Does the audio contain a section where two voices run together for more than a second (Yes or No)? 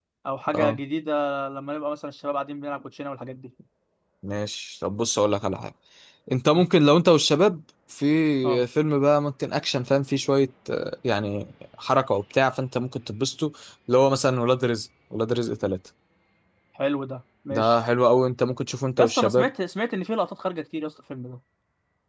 No